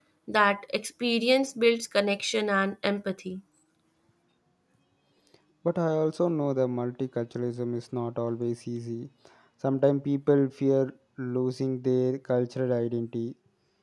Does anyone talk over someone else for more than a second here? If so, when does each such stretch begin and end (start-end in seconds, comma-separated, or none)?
none